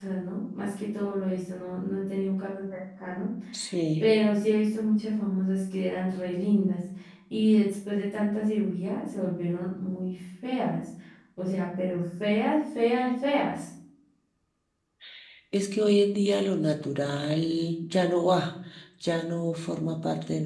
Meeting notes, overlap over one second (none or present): none